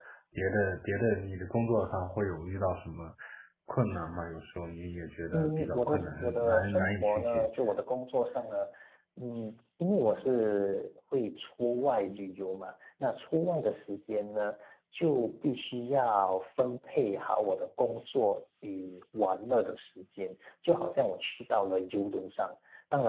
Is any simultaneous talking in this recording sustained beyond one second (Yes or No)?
Yes